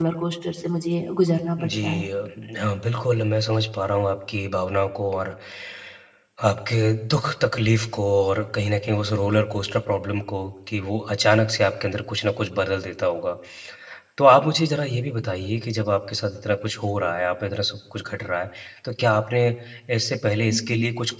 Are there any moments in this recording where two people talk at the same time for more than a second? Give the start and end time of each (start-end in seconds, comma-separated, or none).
none